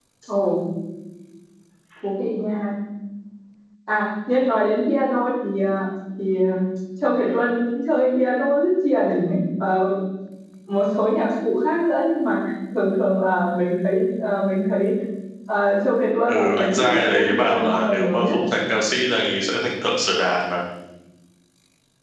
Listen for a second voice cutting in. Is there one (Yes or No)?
Yes